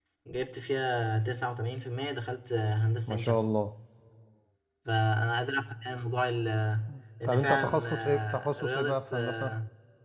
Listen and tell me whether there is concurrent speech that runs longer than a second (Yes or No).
Yes